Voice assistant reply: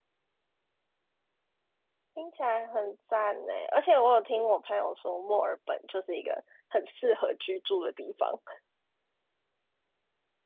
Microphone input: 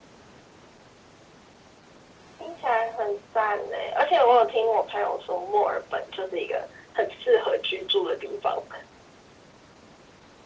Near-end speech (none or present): none